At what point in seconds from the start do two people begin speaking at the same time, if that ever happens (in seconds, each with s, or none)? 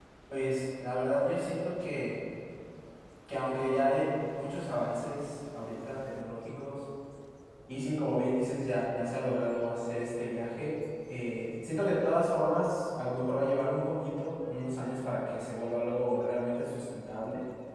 none